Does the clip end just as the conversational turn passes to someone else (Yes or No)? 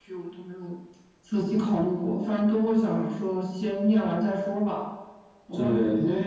Yes